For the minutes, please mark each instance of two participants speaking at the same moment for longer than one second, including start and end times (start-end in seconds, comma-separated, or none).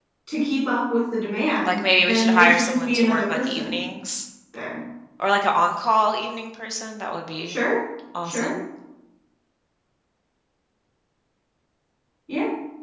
1.7-3.8